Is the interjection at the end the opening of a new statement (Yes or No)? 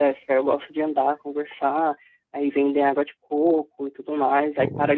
No